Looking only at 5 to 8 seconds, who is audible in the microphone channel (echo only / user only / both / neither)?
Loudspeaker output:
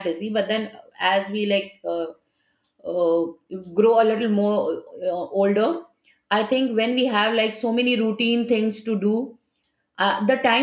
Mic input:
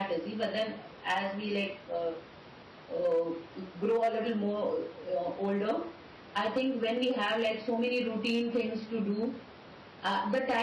echo only